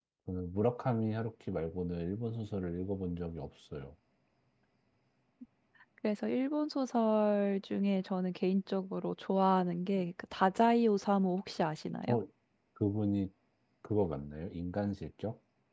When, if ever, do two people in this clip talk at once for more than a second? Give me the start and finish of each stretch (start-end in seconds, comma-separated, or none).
none